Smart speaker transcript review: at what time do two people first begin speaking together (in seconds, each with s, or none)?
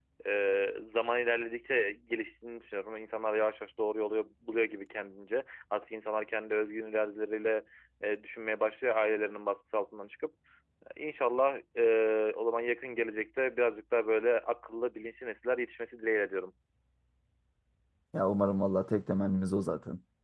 none